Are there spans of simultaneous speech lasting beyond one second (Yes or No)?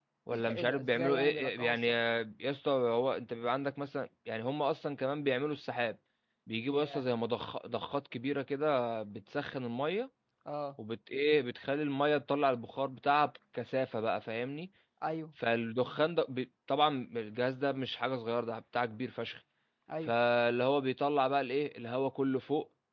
Yes